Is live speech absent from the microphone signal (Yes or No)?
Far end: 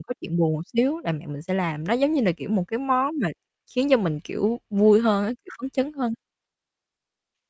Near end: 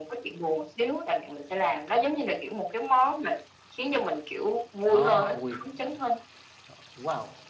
No